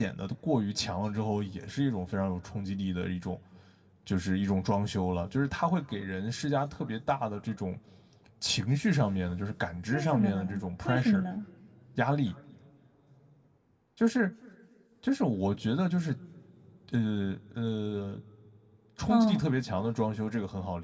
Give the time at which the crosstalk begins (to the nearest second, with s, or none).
10 s